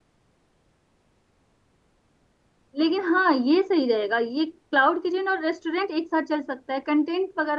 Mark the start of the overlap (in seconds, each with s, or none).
none